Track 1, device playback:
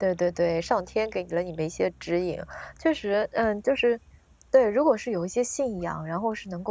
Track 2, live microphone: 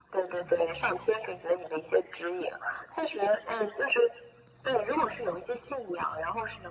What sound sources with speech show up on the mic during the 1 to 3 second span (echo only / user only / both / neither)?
echo only